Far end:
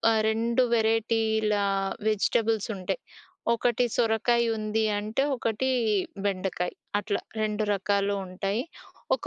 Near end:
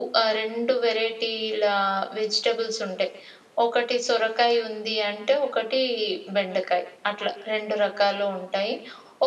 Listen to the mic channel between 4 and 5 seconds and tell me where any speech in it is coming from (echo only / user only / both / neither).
echo only